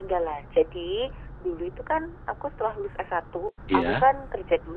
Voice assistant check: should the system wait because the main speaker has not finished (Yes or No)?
Yes